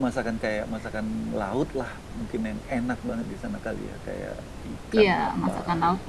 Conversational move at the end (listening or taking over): taking over